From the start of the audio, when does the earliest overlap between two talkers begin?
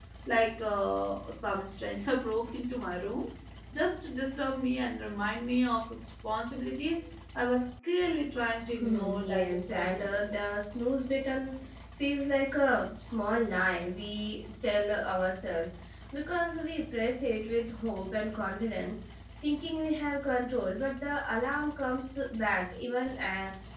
8.8 s

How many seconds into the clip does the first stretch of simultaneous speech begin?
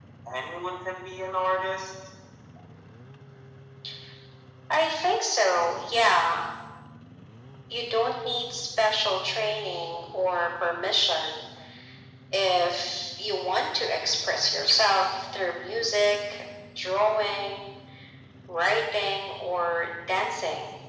none

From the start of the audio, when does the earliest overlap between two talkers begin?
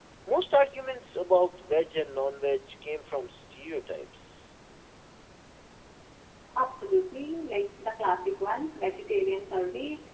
none

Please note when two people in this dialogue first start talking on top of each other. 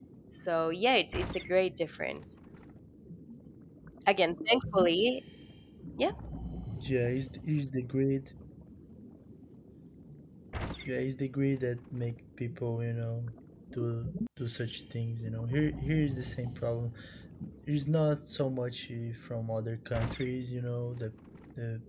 none

